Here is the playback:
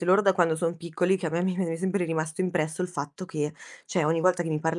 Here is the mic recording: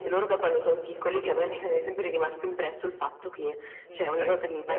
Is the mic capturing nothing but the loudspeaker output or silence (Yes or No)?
No